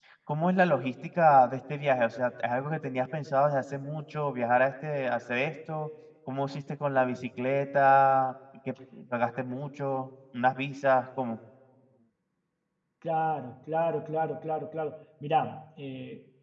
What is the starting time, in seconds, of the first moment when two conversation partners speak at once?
none

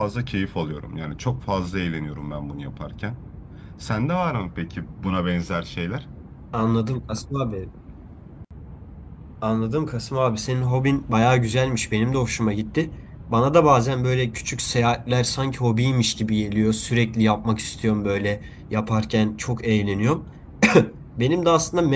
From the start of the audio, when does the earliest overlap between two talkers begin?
none

